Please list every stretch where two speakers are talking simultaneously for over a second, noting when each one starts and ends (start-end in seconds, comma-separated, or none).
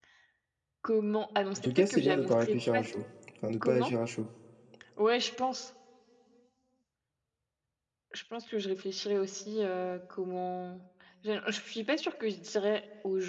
1.6-2.8